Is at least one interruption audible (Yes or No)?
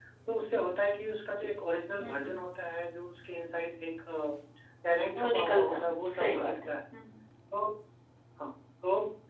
Yes